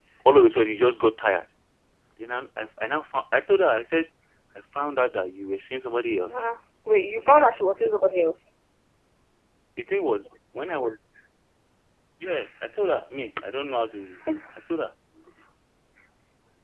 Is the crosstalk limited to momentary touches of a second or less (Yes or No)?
Yes